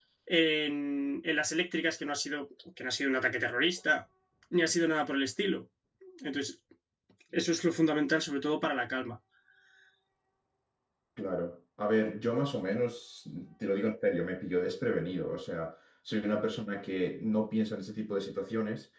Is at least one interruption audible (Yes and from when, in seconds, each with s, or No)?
No